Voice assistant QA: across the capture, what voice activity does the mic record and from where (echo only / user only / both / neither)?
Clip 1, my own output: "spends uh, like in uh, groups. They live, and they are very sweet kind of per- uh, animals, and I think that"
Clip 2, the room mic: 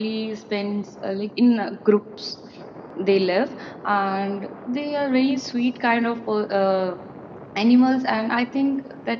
echo only